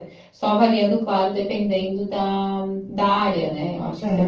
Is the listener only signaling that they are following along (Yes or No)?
No